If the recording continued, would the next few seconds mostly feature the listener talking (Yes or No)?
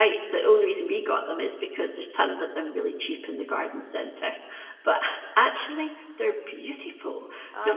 No